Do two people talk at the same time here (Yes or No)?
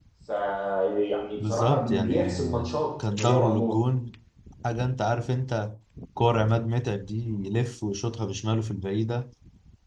Yes